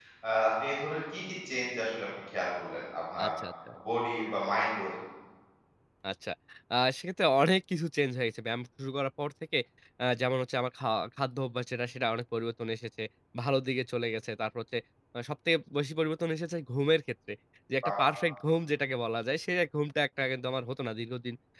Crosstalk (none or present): none